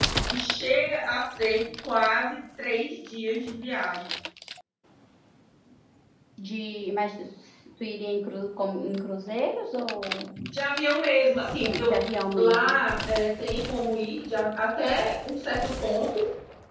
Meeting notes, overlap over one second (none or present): none